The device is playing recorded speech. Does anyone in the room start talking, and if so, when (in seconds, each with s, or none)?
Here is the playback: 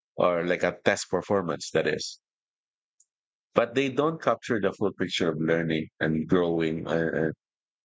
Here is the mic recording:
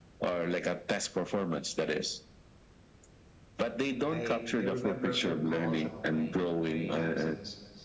4.1 s